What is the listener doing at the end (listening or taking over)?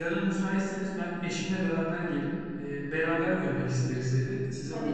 taking over